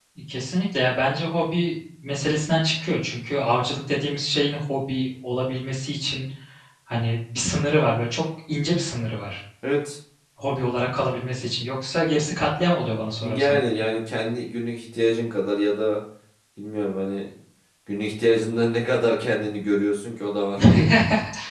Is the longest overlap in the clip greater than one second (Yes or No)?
No